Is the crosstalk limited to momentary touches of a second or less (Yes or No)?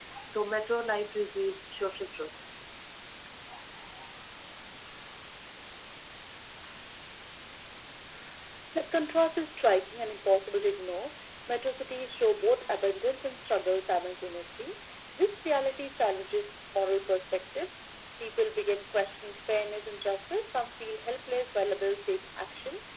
Yes